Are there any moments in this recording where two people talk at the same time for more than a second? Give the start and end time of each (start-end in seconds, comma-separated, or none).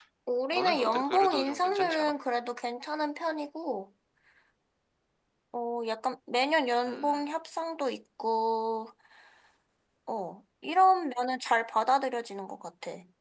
0.5-2.1